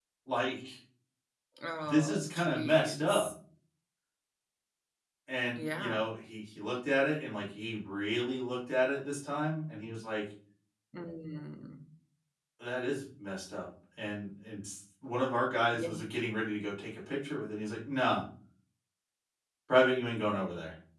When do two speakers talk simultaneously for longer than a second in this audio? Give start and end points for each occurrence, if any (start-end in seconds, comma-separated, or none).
1.9-3.3